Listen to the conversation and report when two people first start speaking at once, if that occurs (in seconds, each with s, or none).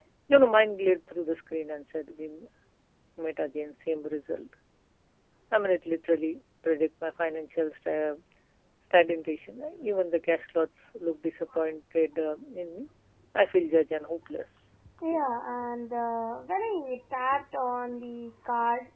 none